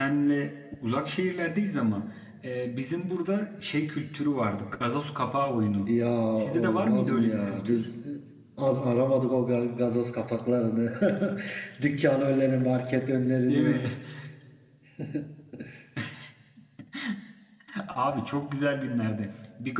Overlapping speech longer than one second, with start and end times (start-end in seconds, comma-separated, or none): 6.4-7.8